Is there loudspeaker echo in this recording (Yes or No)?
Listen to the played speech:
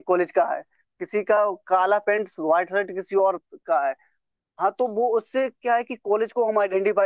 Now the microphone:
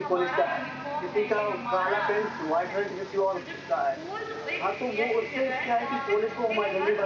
Yes